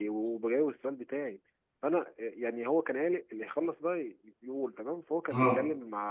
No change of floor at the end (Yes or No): Yes